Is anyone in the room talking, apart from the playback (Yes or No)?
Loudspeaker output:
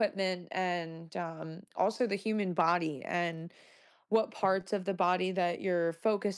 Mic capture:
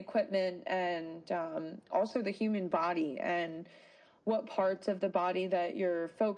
No